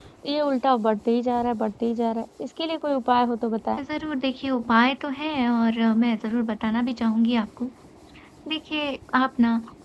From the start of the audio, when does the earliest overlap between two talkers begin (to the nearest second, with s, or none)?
none